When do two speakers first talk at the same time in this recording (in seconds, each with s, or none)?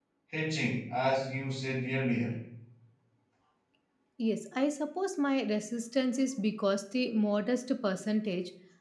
none